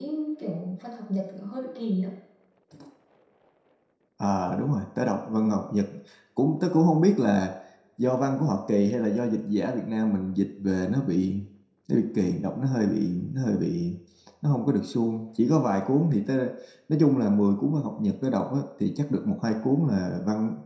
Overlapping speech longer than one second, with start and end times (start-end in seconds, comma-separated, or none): none